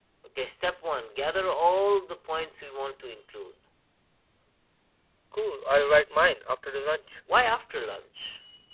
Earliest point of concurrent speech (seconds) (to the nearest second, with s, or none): none